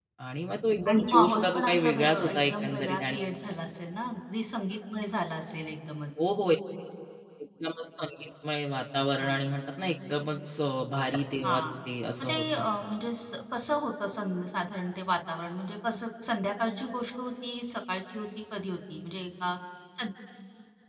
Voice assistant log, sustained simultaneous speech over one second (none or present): present